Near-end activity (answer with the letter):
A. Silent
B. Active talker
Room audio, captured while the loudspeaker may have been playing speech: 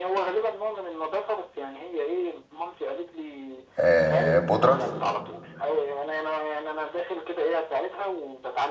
B